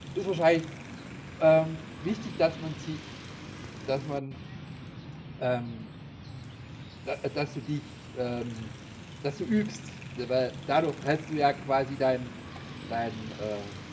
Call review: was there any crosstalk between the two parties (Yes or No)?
No